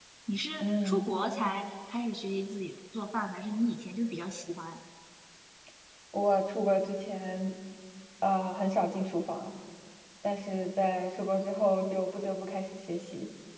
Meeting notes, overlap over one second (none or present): none